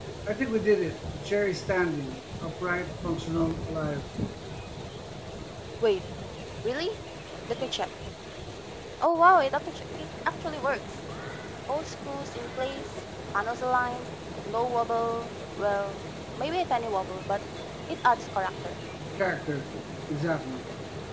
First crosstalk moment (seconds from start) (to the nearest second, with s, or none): none